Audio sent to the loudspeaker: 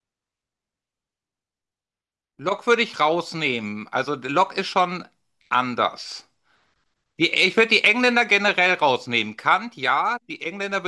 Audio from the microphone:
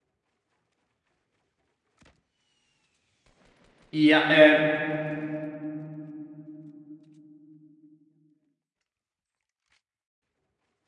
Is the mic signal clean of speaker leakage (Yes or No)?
Yes